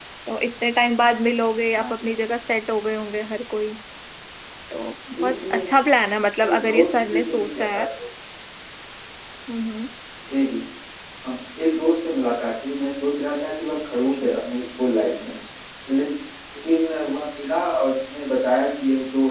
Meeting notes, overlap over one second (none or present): present